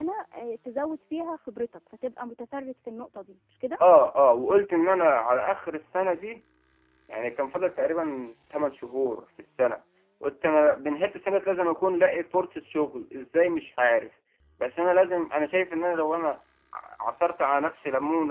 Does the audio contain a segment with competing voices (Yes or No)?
No